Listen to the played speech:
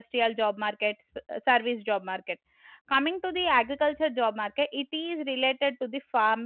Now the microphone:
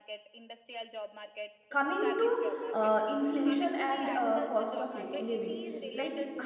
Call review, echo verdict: present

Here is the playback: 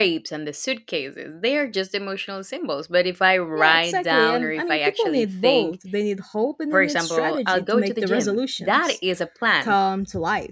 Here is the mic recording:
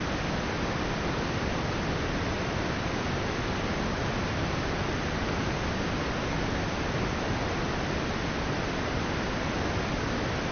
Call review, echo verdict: none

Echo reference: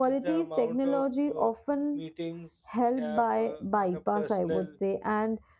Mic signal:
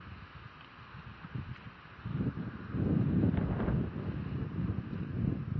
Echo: none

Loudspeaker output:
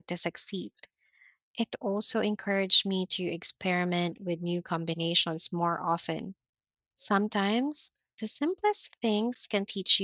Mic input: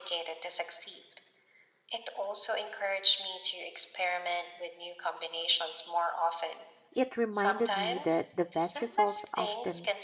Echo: present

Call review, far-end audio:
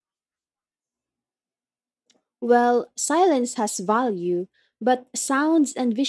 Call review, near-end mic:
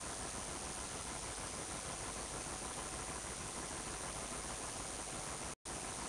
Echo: none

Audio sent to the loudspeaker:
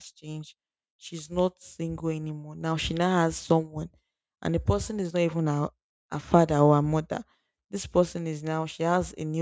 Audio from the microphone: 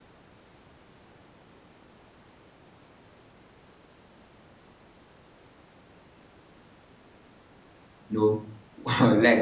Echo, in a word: none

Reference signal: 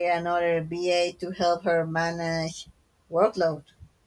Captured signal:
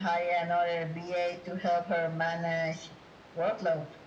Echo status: present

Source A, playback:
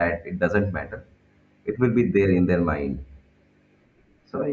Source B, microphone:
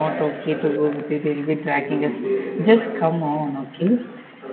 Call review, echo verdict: present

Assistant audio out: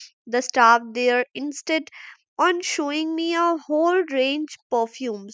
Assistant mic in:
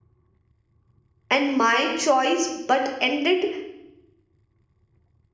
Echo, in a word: none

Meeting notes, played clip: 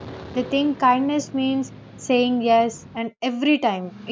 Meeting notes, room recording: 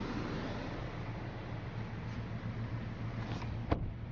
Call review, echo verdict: none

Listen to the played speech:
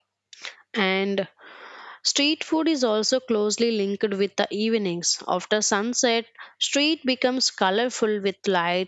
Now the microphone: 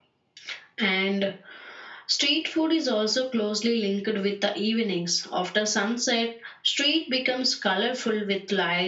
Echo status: present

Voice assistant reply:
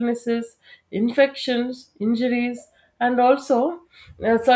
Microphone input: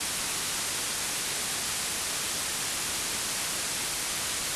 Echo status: none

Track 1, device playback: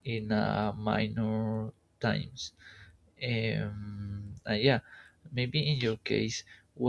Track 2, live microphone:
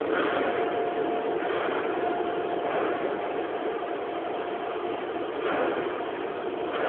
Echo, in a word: none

